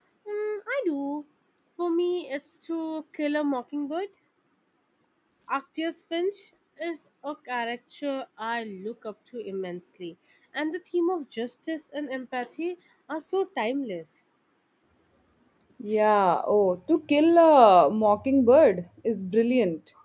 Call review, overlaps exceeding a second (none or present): none